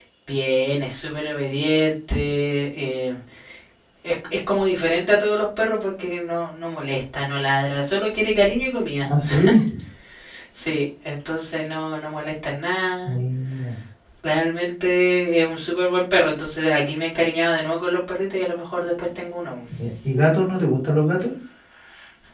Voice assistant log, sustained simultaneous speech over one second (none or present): none